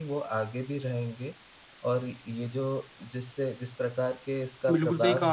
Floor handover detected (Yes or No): Yes